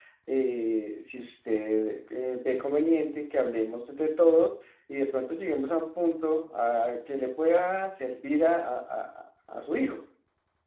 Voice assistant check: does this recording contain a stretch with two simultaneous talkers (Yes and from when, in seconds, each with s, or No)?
No